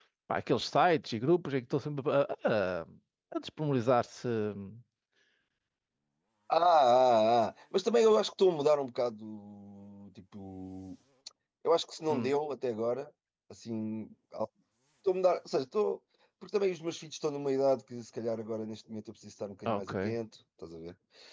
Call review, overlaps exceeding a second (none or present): none